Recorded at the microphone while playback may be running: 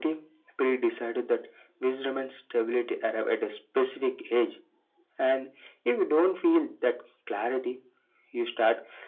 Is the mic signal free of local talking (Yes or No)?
Yes